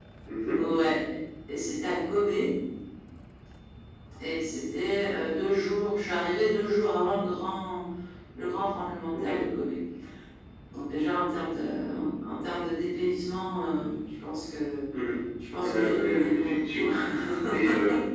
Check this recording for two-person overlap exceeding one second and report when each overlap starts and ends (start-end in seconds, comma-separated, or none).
15.5-16.9